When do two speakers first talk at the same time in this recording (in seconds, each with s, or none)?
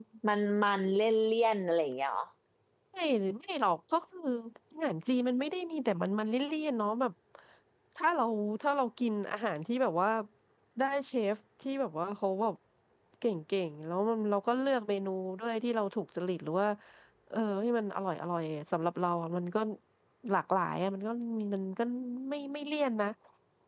none